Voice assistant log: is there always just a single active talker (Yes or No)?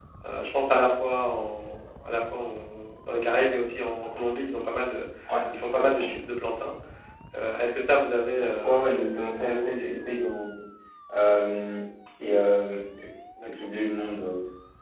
No